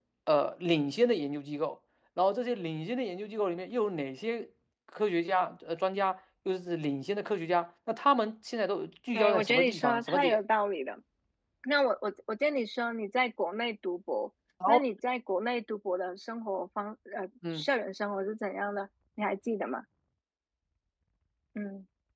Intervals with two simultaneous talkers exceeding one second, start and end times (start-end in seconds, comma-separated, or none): 9.1-10.4